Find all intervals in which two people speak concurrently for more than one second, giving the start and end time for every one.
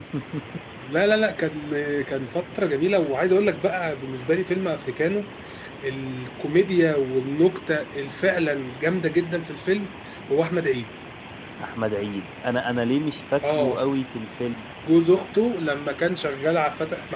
none

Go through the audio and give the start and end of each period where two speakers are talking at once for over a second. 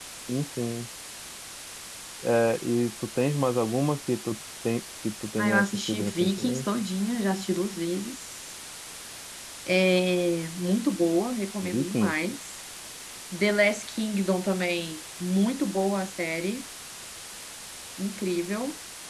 5.4-6.6

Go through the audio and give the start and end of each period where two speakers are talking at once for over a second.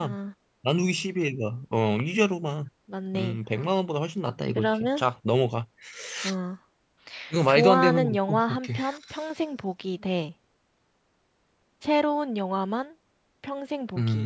7.5-8.8

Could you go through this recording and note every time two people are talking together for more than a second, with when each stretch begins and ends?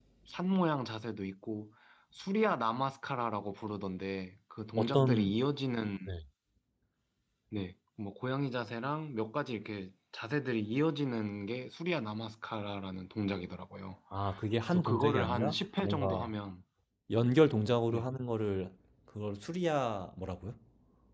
14.7-16.3

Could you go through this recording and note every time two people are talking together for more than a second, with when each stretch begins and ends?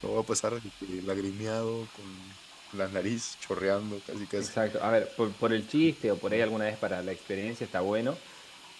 none

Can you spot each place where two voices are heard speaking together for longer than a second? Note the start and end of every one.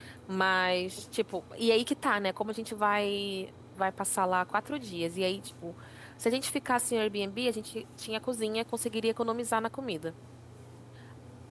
none

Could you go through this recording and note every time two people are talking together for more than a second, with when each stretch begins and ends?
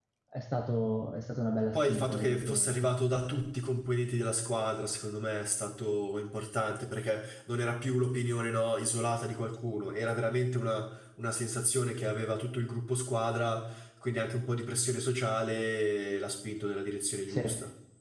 1.7-2.9

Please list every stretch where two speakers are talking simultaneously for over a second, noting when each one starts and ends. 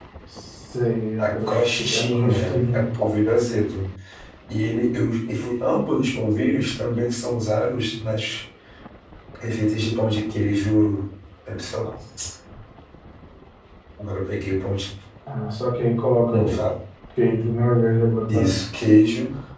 1.2-2.9

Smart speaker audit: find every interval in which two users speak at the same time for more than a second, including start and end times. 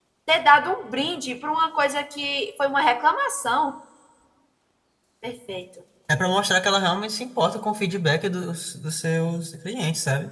none

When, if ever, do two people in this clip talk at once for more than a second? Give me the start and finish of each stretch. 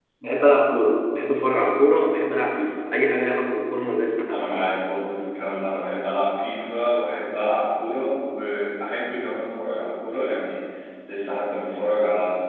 none

